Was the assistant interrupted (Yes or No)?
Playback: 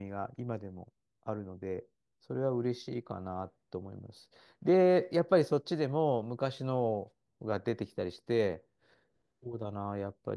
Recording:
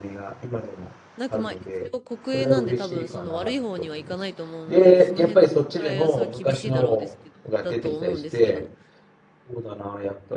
Yes